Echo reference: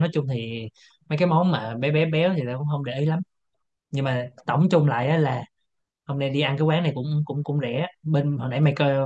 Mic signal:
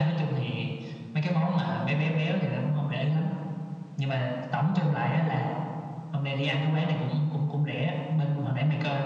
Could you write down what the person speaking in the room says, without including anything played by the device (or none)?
none